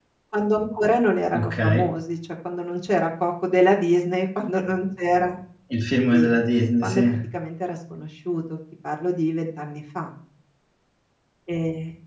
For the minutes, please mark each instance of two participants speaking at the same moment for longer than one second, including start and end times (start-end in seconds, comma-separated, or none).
none